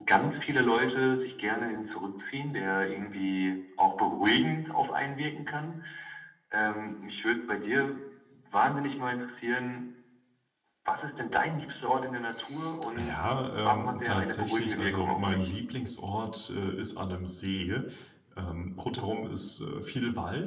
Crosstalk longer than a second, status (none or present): present